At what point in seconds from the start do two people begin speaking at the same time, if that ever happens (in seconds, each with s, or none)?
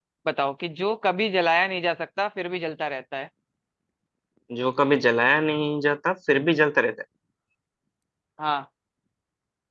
none